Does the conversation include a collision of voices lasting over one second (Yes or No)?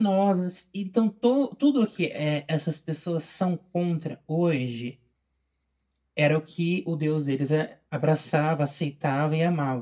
No